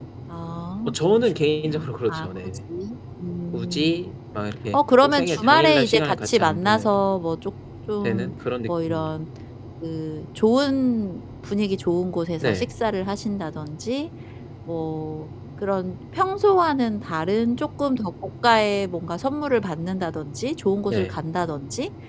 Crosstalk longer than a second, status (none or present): present